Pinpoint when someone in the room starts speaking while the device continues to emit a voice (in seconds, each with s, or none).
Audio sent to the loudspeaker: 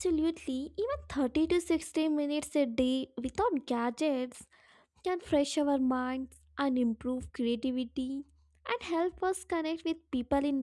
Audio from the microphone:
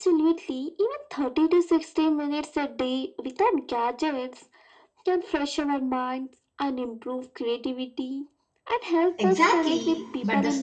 9.2 s